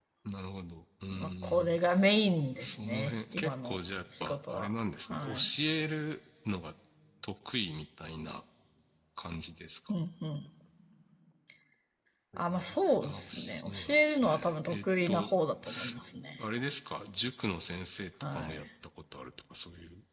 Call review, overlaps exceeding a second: present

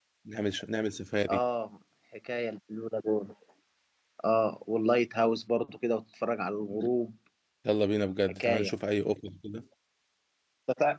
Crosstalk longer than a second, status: none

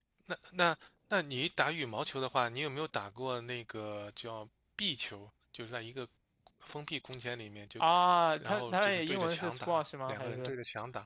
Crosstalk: present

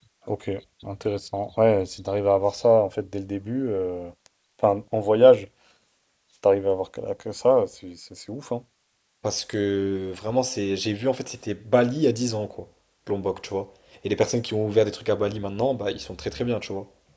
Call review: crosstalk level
none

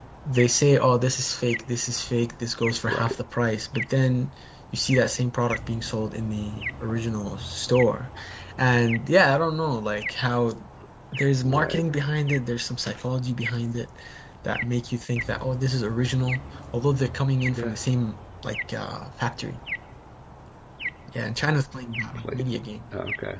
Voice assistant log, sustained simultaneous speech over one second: none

